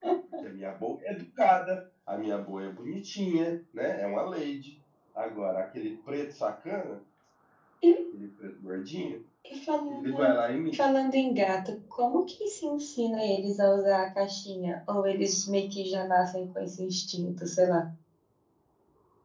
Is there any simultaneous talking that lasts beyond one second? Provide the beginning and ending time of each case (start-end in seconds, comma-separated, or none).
none